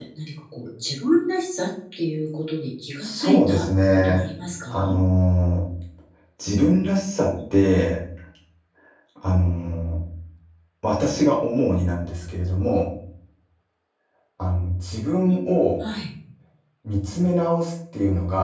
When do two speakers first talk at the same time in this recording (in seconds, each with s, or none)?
3.0 s